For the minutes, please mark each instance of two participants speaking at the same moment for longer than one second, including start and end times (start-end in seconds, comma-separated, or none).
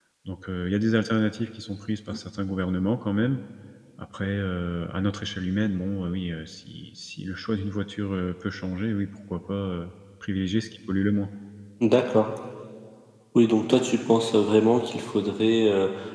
none